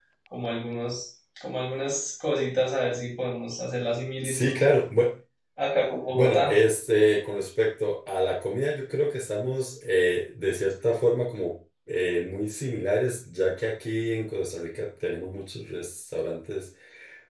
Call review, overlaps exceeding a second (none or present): none